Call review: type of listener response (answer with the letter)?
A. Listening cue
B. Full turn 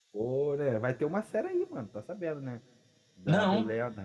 A